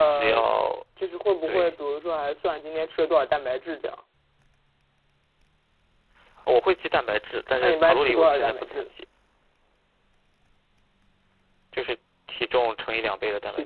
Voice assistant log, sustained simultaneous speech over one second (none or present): present